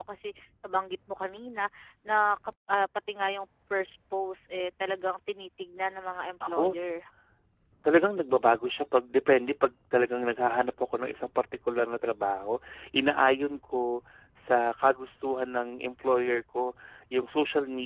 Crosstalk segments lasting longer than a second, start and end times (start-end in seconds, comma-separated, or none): none